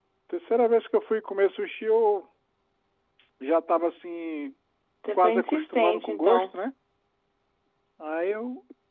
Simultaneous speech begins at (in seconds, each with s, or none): 5.1 s